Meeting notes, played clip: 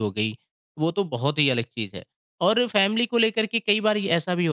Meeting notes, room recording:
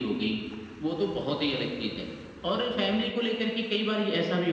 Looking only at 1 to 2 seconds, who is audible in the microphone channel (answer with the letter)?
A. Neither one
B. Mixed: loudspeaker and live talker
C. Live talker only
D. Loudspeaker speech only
D